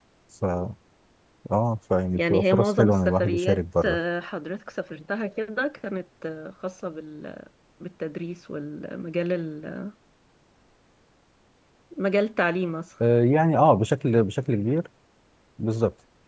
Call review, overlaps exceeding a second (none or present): present